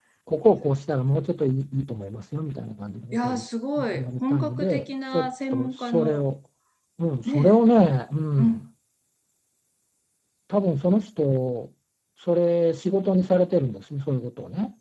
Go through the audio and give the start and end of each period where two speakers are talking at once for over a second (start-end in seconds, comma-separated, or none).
3.9-6.2